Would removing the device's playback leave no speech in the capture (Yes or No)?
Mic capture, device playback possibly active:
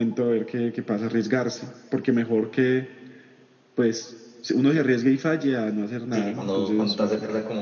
No